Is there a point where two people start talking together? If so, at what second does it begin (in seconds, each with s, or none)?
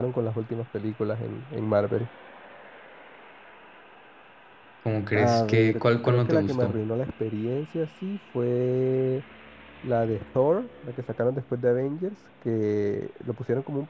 5.1 s